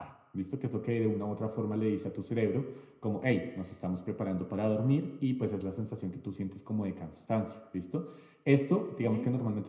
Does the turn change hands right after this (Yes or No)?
No